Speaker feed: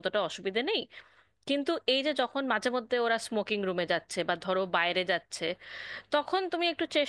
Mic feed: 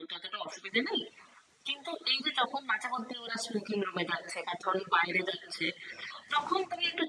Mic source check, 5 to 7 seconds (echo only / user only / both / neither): echo only